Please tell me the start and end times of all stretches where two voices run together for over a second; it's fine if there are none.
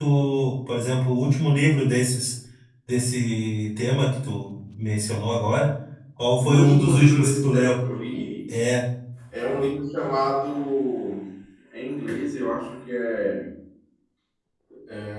6.4-7.7

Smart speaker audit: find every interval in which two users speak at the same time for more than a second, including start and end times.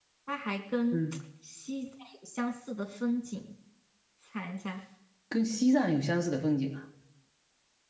none

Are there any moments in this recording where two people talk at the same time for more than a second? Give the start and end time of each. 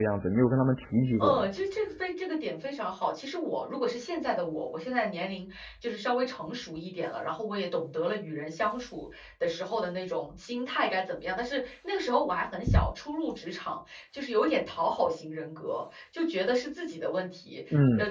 none

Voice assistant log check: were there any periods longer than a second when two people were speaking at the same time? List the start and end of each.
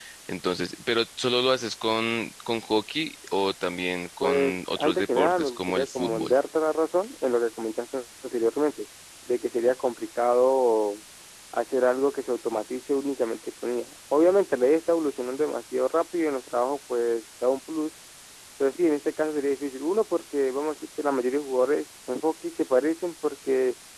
4.2-6.3

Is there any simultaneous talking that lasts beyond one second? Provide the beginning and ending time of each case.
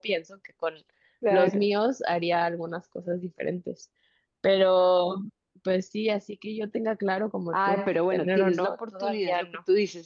7.5-9.4

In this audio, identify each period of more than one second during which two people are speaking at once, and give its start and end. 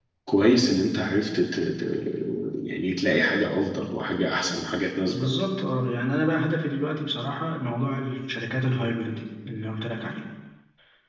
none

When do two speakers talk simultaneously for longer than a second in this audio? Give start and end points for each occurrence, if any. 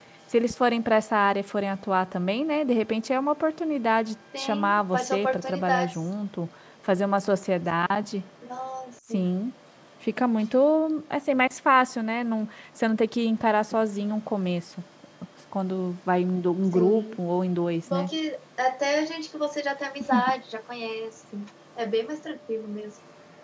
4.4-6.0

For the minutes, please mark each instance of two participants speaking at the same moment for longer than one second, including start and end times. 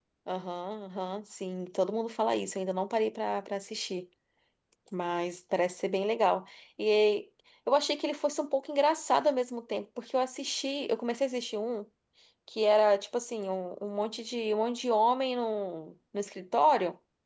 none

